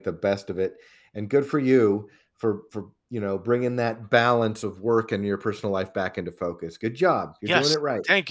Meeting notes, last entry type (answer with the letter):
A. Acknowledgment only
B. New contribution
B